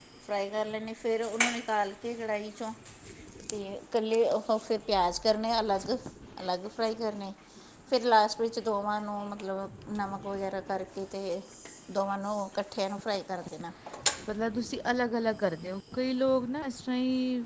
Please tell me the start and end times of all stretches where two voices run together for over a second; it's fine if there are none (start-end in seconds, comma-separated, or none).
none